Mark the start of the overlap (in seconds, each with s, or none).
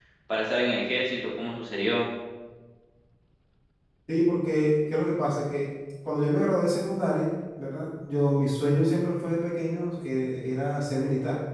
none